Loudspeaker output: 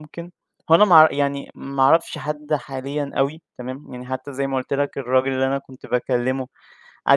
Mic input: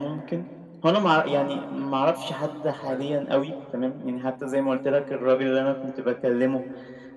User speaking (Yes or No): Yes